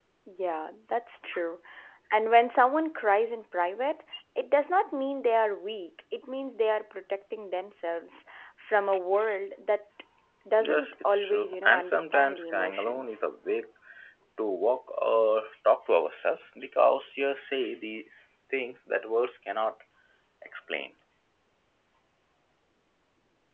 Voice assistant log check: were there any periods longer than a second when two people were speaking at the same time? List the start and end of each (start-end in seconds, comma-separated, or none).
10.7-13.2